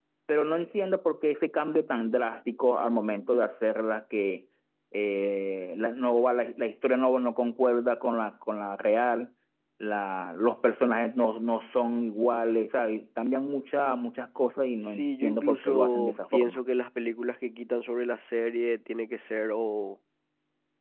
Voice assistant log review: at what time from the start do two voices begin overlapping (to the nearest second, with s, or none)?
15 s